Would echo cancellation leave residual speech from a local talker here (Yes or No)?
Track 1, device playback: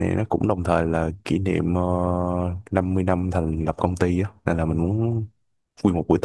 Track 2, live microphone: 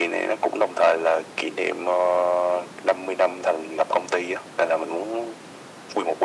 No